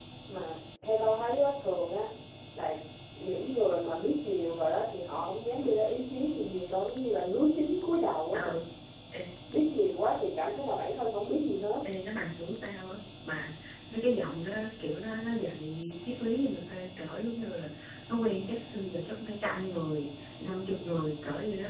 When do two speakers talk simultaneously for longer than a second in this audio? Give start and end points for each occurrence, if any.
none

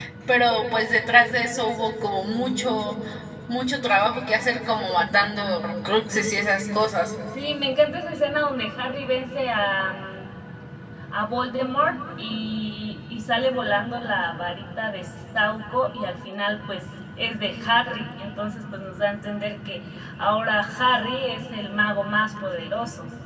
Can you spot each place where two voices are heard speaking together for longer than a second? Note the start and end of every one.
none

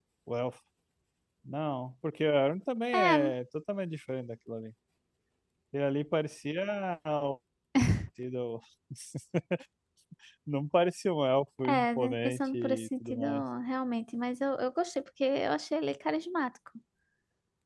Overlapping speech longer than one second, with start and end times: 11.7-13.4

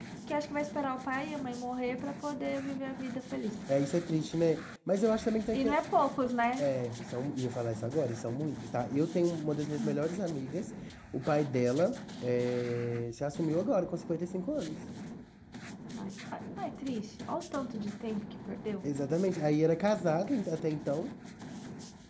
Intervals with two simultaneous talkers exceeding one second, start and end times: none

